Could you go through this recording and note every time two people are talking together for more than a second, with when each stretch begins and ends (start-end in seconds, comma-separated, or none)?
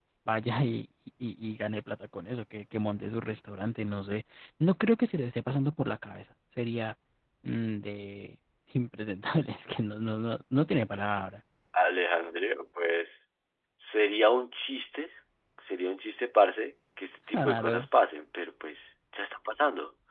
none